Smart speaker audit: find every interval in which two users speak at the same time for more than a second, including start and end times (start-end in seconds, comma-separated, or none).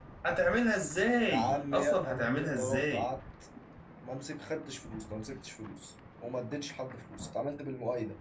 1.3-3.1